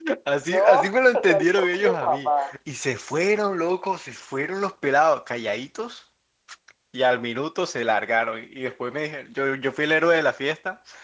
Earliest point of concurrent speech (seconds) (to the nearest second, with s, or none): 1 s